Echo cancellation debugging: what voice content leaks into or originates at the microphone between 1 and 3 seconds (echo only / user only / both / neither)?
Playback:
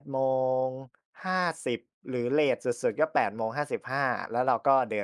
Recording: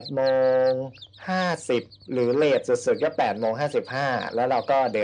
echo only